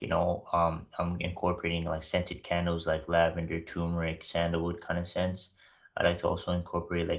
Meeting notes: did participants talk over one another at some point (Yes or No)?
No